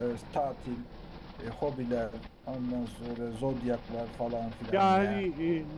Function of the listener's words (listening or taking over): taking over